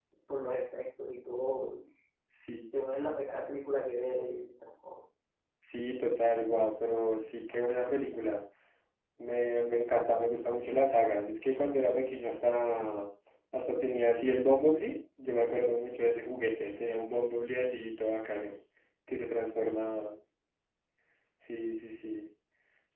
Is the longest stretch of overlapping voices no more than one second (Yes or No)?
Yes